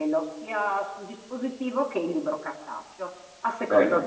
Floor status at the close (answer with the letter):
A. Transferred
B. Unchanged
B